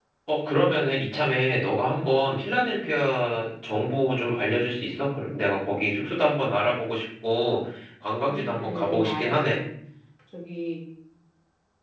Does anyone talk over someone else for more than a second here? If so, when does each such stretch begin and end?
8.3-9.6

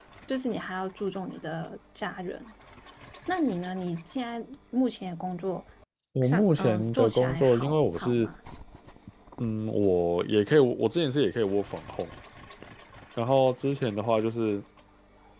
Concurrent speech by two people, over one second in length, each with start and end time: 6.2-8.3

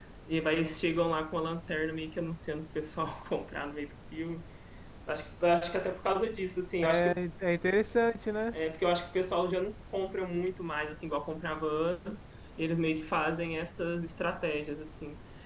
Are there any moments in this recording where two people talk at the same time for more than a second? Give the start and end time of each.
none

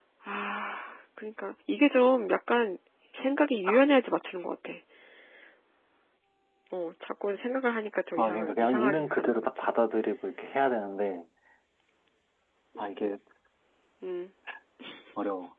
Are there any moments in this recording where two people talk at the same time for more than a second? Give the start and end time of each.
8.2-9.7

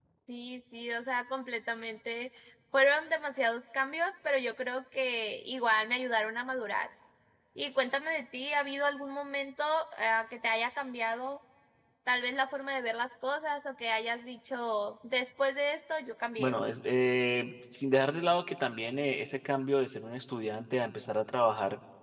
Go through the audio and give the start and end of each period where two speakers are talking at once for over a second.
none

